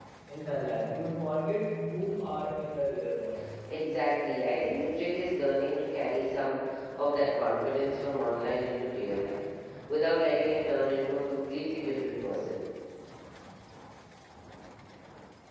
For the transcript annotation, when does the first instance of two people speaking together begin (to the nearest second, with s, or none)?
none